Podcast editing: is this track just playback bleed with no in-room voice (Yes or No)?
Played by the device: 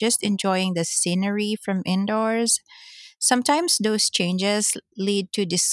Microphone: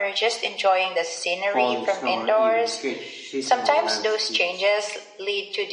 No